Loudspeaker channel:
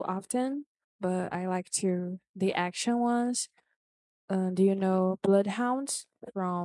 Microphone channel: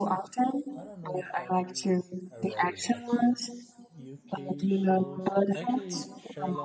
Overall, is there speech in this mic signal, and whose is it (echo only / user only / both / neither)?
both